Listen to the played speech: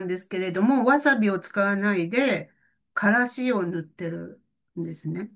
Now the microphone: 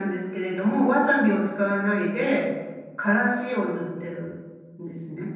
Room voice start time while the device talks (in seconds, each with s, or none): none